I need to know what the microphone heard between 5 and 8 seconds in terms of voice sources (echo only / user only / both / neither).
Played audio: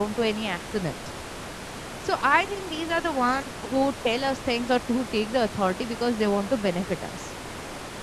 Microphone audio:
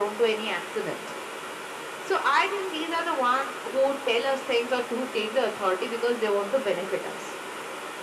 echo only